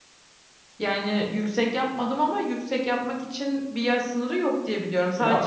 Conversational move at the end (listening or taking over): listening